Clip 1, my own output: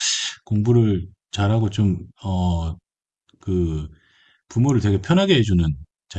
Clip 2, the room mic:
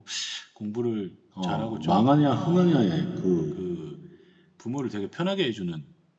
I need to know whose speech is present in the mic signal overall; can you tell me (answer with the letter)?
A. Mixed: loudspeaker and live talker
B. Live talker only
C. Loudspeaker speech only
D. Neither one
A